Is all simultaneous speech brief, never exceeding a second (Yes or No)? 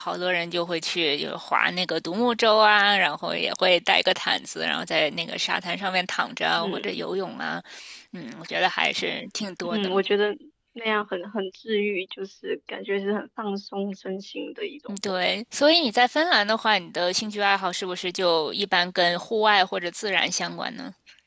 Yes